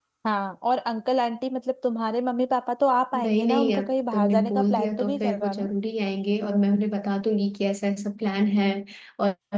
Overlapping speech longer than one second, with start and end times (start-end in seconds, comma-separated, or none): 3.2-5.7